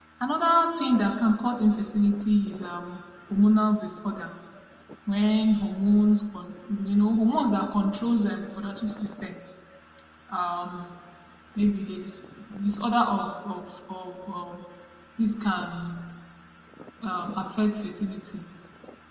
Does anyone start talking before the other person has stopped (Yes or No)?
No